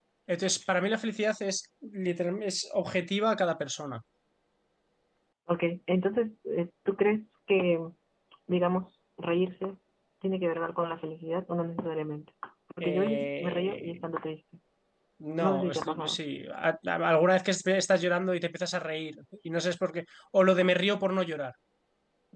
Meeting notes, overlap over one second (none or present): present